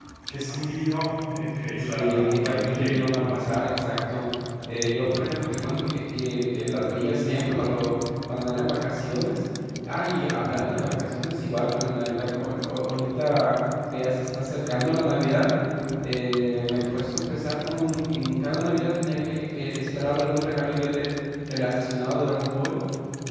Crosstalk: present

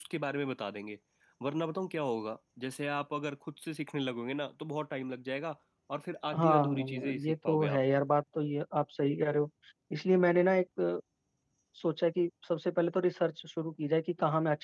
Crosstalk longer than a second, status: present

